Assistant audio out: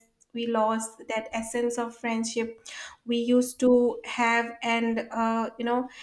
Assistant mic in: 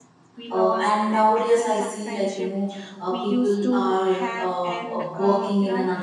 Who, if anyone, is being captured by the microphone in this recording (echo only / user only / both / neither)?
both